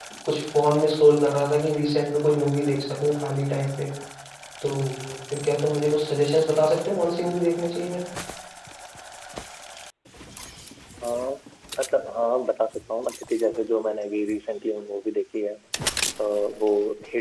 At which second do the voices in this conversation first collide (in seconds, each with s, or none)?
none